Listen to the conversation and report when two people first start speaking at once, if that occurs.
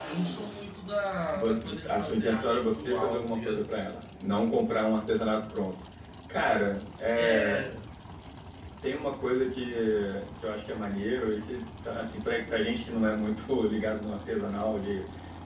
1.3 s

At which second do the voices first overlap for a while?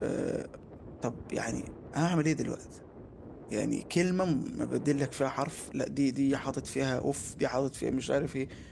none

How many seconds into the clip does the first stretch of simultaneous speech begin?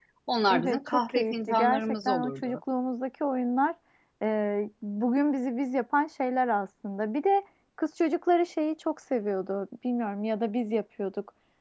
0.5 s

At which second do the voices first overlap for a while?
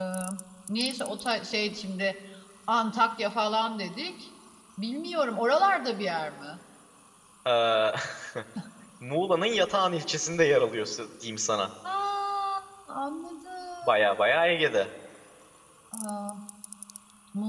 none

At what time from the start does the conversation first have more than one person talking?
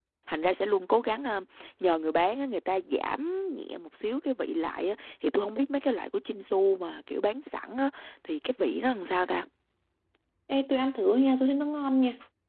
none

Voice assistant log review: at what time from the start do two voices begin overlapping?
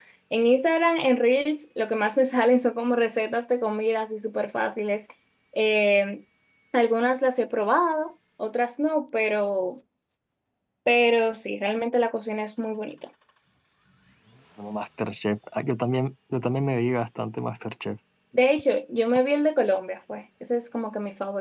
none

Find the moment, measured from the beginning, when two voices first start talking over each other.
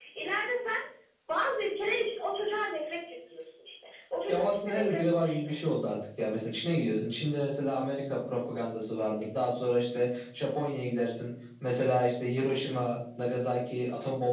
4.3 s

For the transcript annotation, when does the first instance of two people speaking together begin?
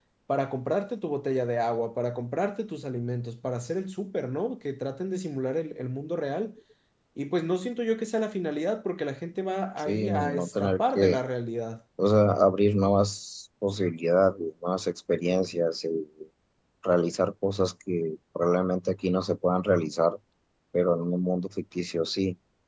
9.8 s

